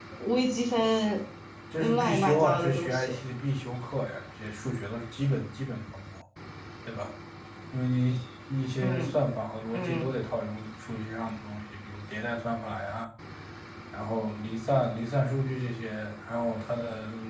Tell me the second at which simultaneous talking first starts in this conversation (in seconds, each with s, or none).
1.8 s